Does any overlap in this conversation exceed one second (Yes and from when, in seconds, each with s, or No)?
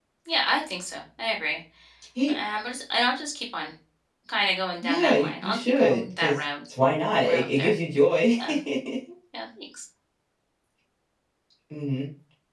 Yes, from 4.8 s